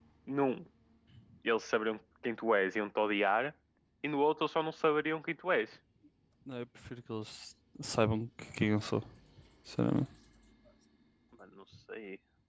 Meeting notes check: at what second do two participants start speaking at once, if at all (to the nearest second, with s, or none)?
none